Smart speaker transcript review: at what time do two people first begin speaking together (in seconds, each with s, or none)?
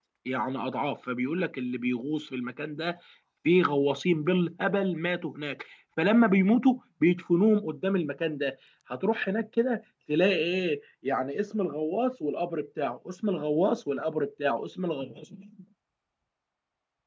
none